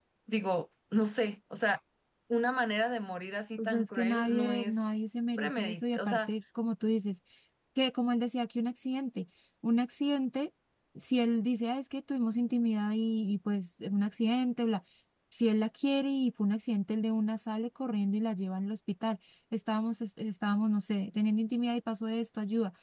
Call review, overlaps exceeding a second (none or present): present